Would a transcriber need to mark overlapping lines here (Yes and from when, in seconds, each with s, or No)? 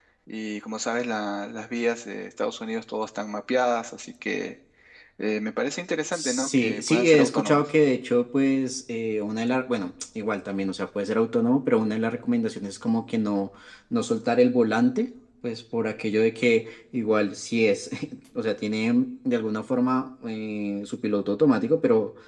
Yes, from 6.1 s